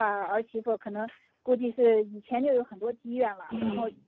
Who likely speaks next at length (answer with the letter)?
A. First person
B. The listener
A